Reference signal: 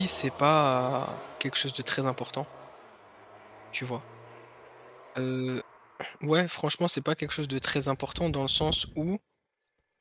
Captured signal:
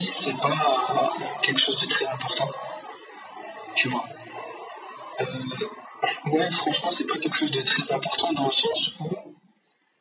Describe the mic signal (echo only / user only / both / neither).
echo only